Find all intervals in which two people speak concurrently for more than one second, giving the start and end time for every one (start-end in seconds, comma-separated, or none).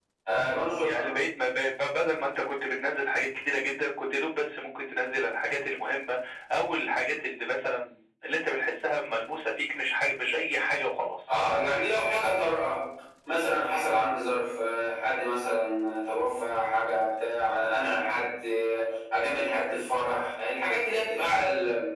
none